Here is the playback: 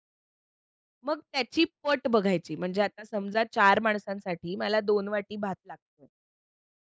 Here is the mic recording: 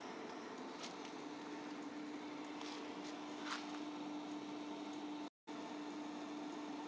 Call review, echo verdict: none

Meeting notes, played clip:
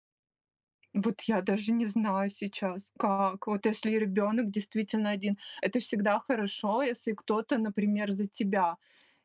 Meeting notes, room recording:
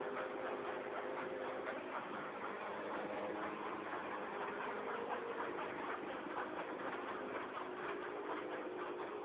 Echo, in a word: none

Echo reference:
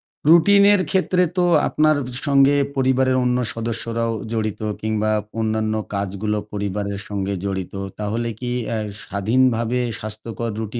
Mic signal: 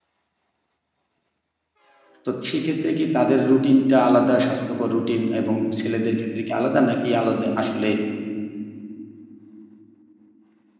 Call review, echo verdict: none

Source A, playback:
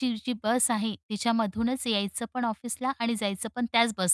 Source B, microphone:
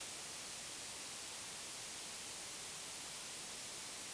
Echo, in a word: none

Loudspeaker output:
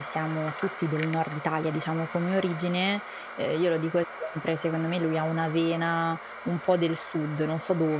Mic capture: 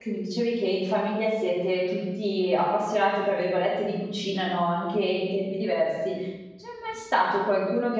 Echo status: none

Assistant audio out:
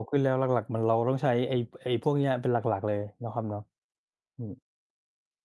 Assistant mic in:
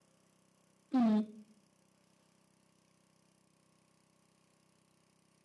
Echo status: none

